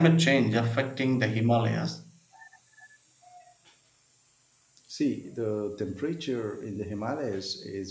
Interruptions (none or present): none